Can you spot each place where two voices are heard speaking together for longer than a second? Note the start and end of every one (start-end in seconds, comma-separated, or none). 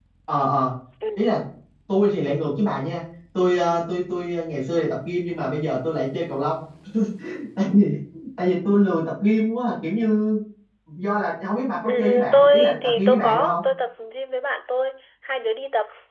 11.8-13.6